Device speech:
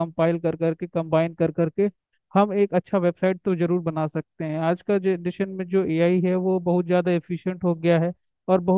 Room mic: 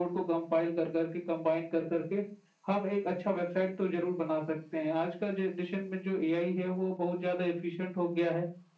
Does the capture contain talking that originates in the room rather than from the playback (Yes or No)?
No